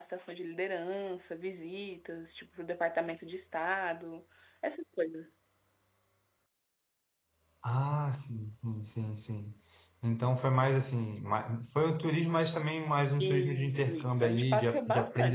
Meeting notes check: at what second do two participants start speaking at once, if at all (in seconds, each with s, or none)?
13.2 s